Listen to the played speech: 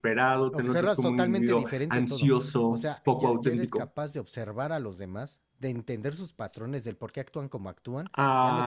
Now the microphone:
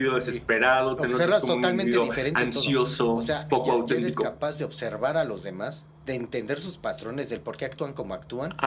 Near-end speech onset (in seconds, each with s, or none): none